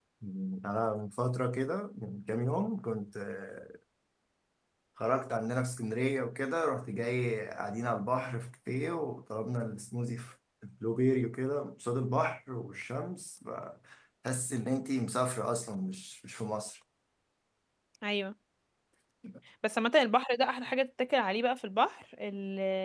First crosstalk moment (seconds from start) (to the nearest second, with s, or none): none